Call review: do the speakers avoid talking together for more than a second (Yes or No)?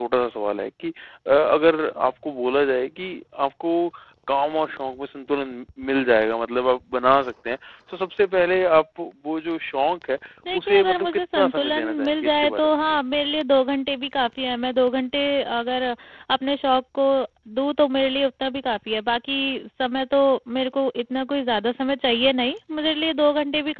No